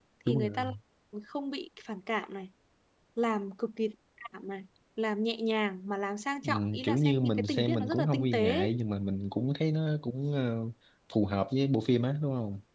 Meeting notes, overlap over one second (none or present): present